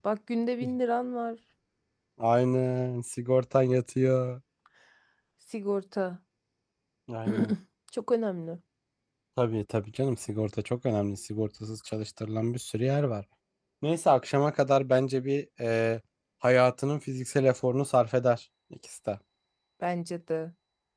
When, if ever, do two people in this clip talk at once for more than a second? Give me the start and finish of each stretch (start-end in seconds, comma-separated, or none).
none